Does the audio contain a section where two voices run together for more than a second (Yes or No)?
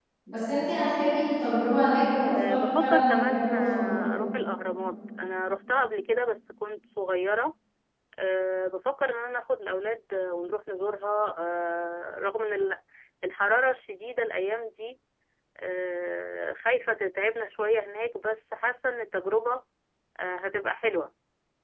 Yes